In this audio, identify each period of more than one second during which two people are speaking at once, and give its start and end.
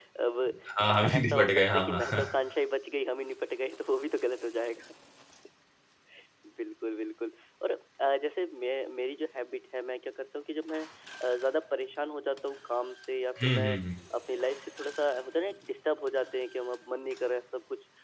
0.9-2.2

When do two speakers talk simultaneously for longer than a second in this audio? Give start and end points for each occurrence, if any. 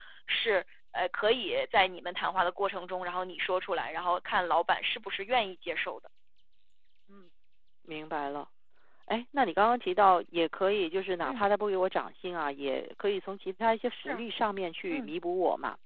none

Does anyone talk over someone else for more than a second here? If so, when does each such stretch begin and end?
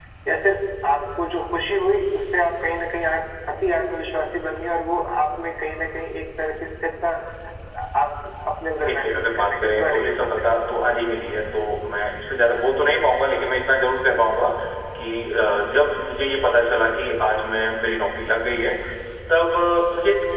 8.8-10.6

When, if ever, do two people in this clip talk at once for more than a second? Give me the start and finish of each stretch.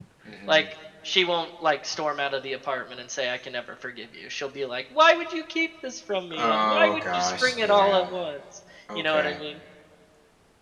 6.4-8.0

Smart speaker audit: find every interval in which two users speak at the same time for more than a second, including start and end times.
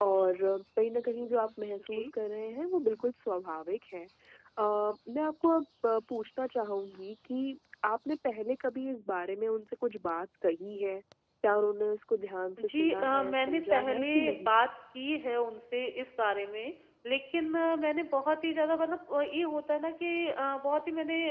12.6-14.5

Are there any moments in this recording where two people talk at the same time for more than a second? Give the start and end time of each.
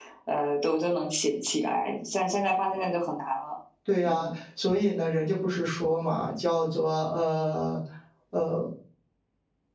none

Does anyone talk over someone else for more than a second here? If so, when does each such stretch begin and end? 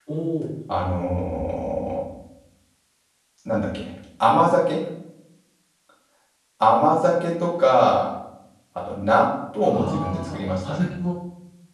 9.6-10.8

